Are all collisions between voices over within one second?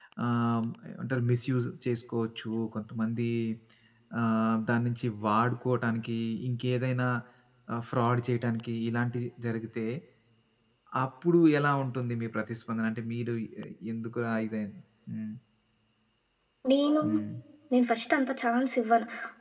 Yes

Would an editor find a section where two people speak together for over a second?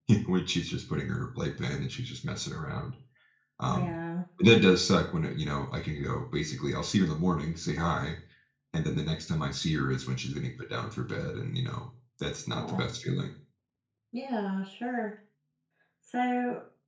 No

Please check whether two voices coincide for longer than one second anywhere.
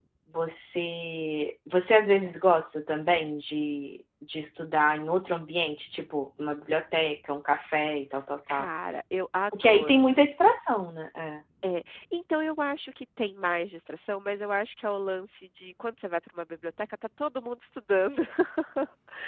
No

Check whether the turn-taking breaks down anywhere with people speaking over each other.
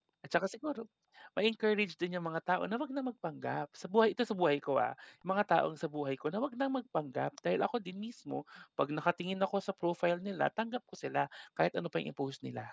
No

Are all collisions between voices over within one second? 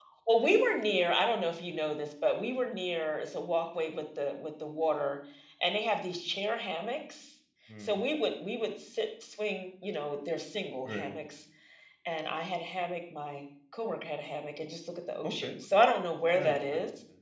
Yes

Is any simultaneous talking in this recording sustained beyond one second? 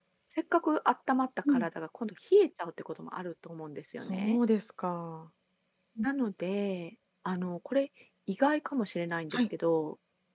No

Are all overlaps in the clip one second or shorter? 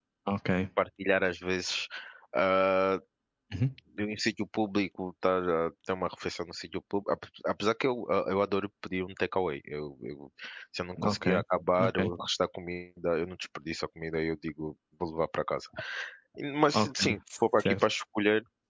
Yes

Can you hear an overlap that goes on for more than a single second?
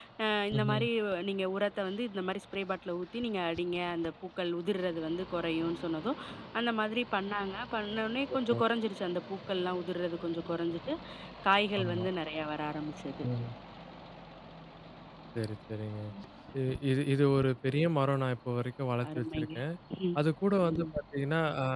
No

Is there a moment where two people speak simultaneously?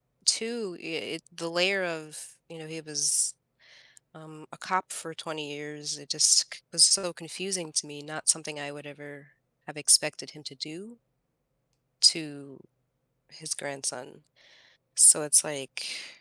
No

